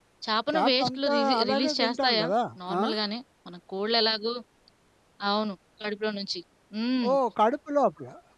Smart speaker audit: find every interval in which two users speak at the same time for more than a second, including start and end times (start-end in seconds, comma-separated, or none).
0.5-2.2